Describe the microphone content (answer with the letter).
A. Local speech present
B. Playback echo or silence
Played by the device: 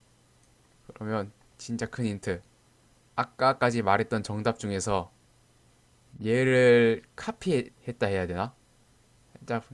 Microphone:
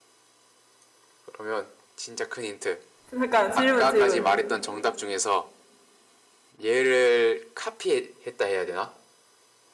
A